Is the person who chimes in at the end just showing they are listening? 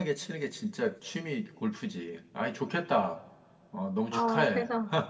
No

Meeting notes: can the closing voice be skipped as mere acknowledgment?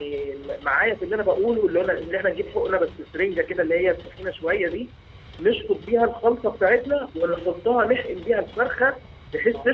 Yes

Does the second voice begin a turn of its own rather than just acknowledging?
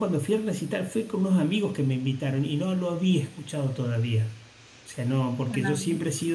No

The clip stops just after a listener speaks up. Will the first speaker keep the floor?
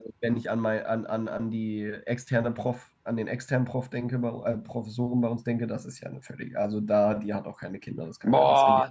No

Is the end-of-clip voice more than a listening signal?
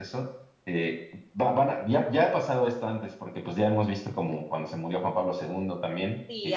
No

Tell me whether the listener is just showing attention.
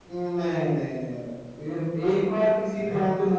Yes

